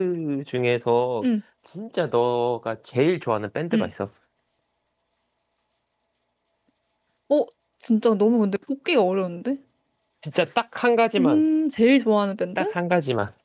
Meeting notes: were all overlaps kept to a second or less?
Yes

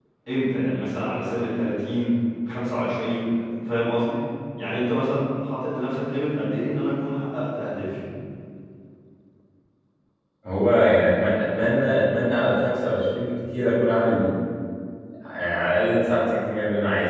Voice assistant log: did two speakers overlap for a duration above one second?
No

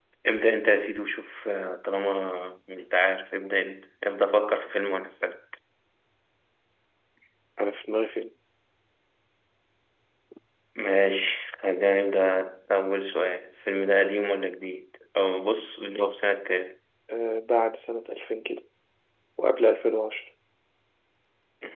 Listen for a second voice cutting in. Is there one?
No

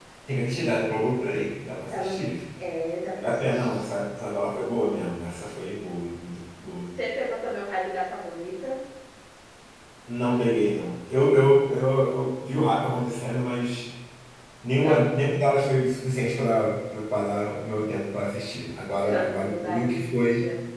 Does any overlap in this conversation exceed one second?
Yes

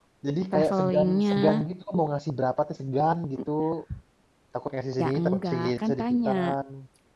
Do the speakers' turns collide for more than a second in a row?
Yes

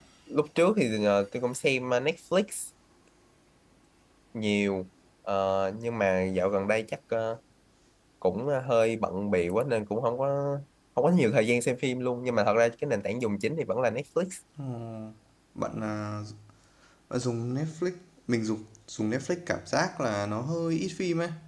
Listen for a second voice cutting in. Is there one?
No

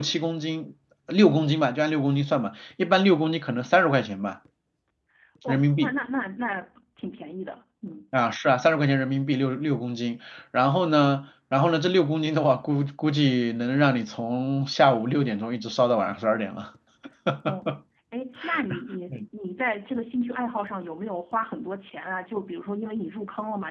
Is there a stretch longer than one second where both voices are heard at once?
No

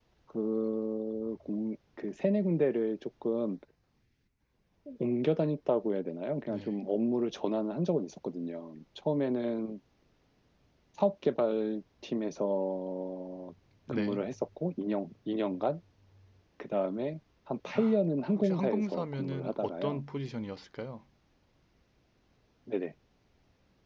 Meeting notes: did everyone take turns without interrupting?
No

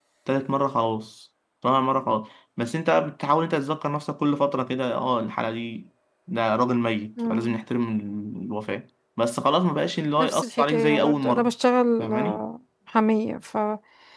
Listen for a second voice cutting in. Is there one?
Yes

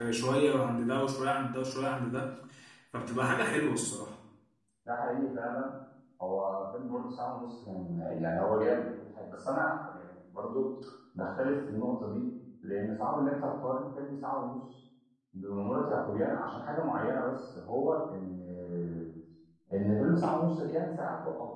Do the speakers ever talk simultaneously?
No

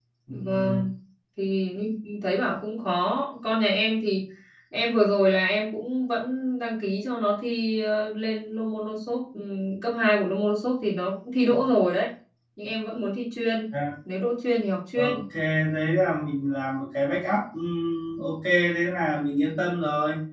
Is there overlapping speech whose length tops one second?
No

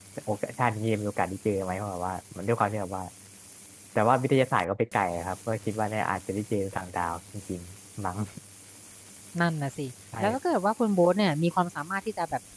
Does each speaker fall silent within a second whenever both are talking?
Yes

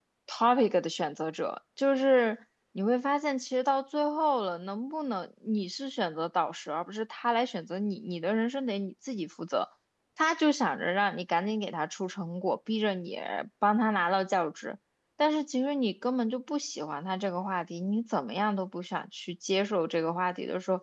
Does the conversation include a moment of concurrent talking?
No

